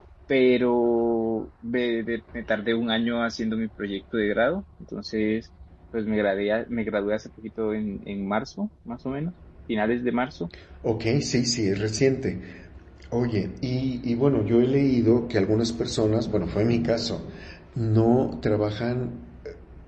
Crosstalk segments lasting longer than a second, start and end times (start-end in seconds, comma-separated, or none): none